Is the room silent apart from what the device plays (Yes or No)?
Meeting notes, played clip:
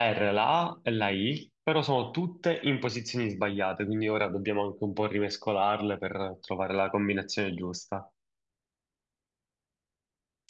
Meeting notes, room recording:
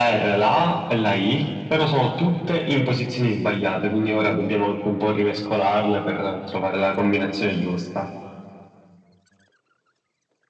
Yes